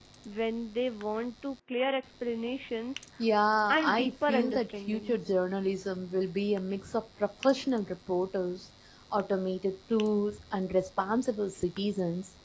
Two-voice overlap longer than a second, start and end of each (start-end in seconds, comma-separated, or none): 3.7-5.2